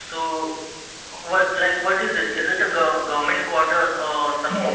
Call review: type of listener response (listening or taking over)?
taking over